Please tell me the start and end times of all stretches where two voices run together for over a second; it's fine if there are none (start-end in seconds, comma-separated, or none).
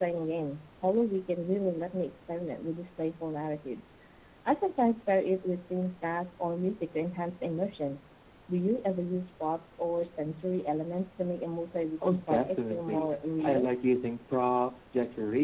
12.0-13.7